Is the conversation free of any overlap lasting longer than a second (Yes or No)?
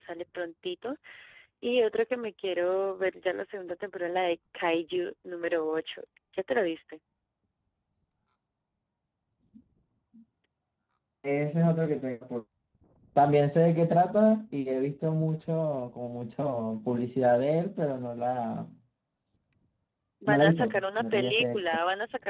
No